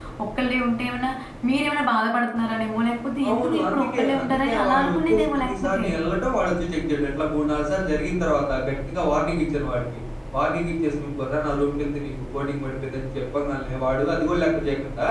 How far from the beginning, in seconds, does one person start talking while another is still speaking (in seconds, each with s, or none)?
3.2 s